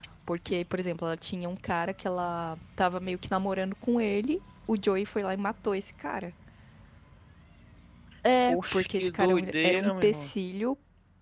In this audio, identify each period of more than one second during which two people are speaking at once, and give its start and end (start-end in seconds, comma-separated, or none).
8.5-10.3